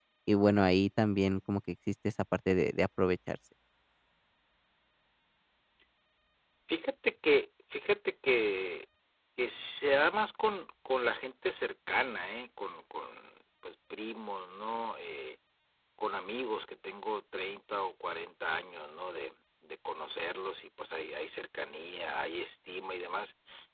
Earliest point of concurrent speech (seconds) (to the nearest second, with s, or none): none